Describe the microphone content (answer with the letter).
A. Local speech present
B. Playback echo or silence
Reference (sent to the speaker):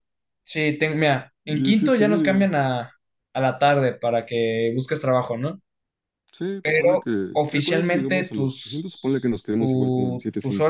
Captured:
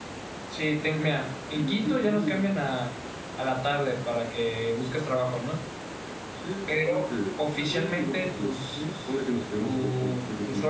B